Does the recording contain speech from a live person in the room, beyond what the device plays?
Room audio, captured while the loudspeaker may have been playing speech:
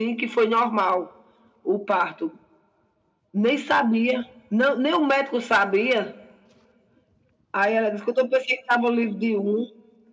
No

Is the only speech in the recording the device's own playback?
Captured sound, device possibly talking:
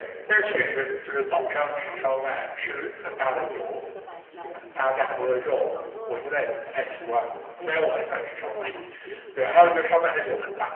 No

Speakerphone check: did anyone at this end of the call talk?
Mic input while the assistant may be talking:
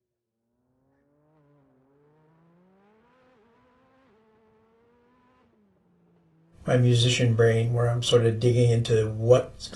Yes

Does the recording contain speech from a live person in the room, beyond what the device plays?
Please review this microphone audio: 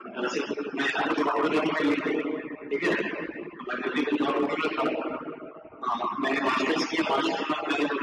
No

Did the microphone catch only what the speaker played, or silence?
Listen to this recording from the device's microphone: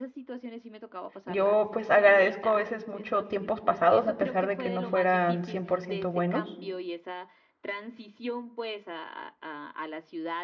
No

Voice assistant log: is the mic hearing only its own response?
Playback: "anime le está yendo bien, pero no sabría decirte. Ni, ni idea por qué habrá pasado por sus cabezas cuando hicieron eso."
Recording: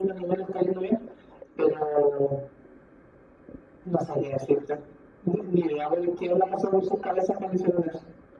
Yes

